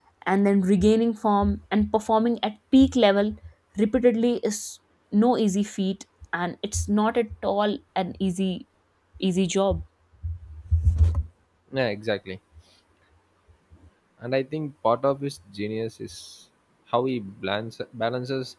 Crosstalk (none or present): none